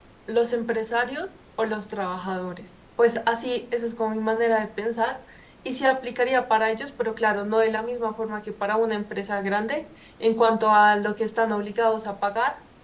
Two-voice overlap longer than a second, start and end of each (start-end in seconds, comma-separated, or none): none